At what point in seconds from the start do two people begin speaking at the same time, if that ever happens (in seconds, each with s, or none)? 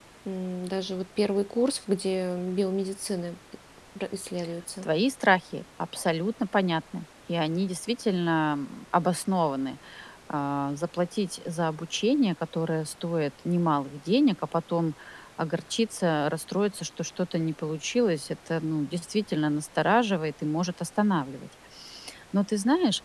none